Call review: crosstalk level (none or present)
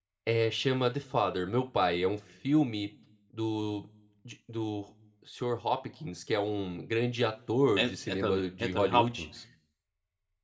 present